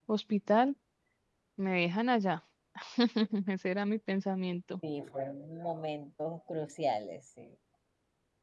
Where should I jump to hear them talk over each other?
none

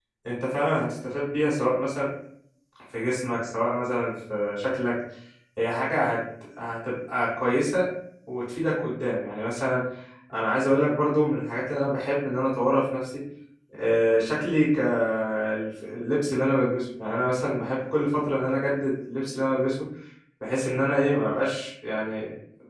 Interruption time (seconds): none

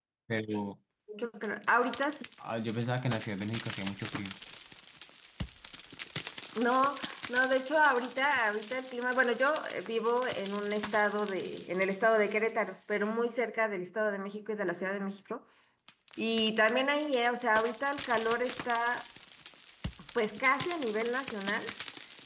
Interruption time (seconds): none

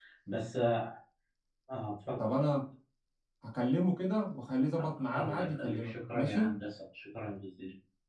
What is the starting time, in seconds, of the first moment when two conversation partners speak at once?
4.8 s

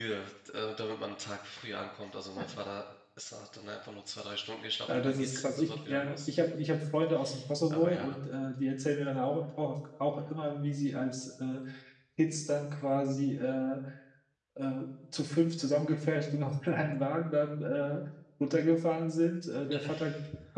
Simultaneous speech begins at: 4.9 s

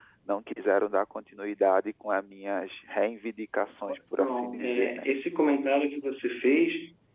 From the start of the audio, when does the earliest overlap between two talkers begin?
3.9 s

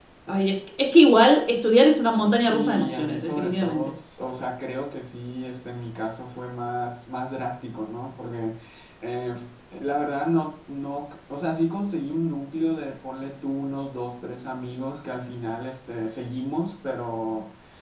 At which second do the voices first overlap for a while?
2.2 s

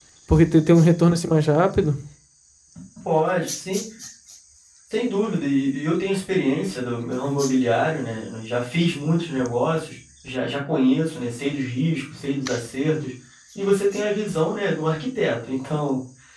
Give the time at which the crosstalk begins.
none

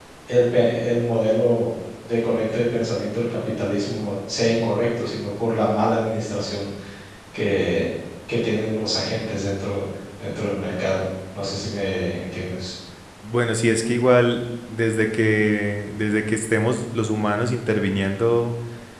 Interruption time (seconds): none

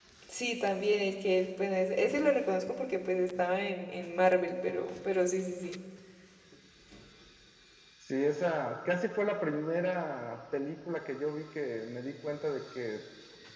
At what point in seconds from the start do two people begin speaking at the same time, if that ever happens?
none

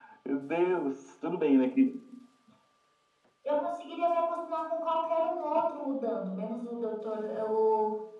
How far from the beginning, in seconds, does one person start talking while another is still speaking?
none

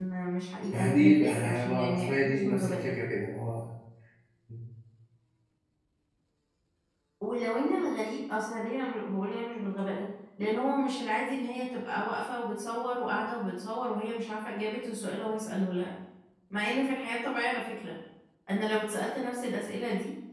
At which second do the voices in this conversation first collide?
0.9 s

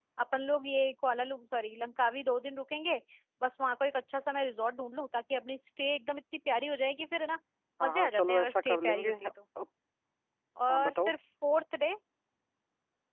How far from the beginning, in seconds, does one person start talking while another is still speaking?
7.8 s

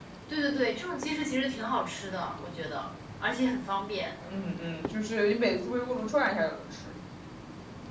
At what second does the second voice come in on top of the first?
none

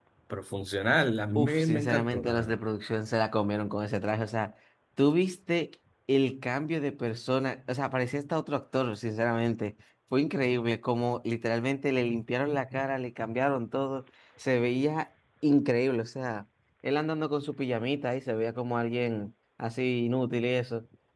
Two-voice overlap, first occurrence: 1.4 s

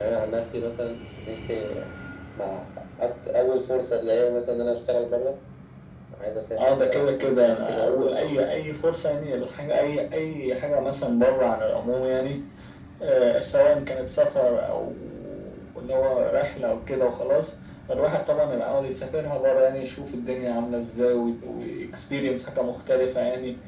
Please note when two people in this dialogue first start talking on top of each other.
6.6 s

